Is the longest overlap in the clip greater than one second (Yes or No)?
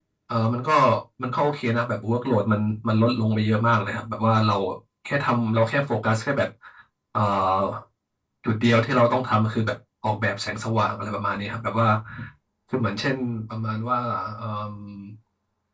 No